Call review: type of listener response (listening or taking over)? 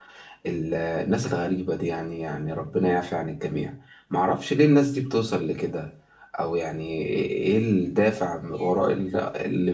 listening